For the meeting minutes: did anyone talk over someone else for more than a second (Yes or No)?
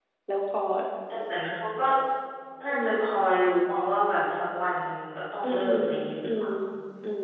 No